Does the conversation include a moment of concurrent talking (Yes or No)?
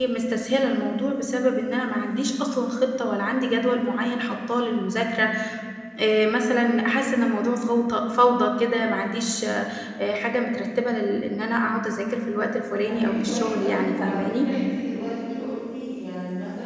Yes